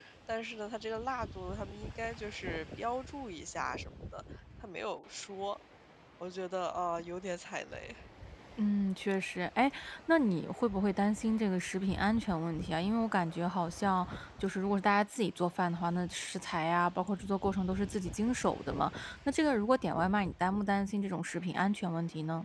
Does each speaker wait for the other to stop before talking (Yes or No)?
Yes